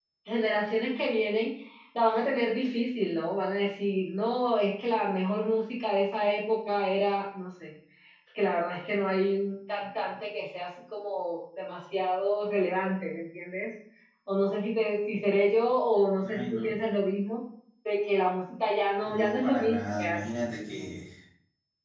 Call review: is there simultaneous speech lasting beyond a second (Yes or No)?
Yes